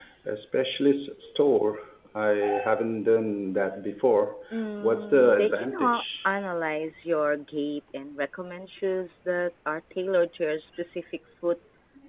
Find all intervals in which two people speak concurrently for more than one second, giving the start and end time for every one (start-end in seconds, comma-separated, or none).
4.8-6.3